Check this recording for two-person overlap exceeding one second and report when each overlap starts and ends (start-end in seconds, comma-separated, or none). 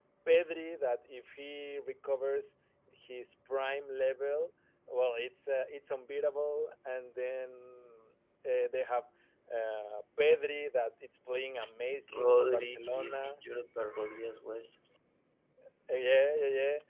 12.1-13.4